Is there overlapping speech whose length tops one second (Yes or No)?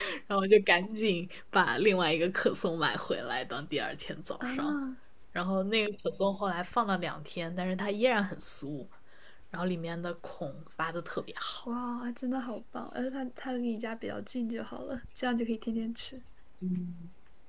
No